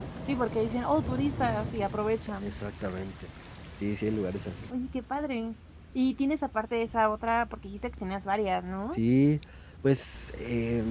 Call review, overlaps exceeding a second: none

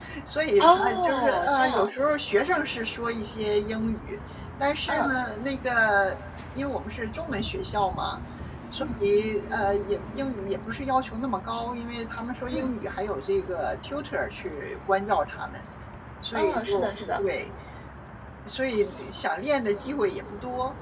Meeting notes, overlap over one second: present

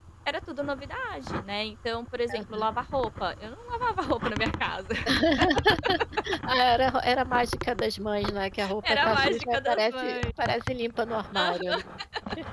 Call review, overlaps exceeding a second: present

